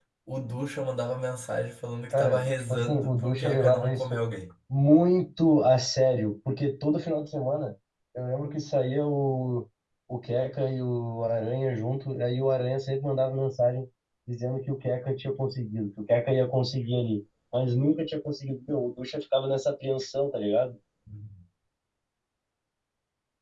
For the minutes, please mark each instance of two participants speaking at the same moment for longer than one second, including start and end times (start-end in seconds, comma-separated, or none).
2.1-4.2